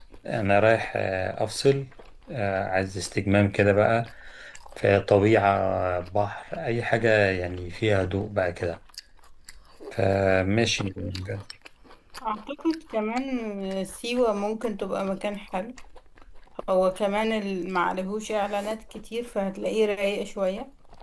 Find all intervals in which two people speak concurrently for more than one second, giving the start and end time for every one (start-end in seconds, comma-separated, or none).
none